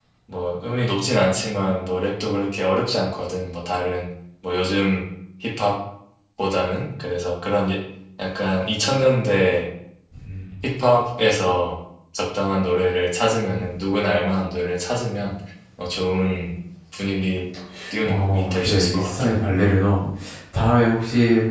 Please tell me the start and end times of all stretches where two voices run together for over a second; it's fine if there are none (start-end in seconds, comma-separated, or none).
18.0-19.4